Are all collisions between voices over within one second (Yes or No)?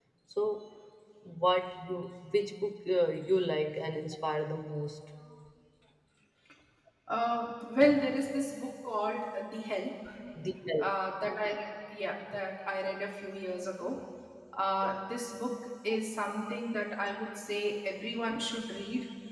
Yes